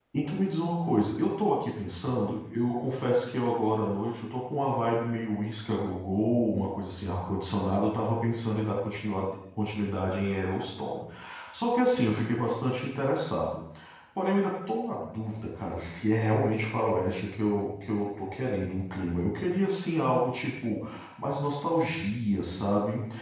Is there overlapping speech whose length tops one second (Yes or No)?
No